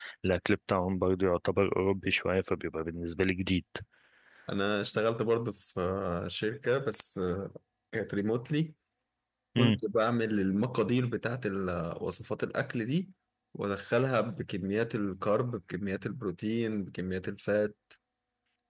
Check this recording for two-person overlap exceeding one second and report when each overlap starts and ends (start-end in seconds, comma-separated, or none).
none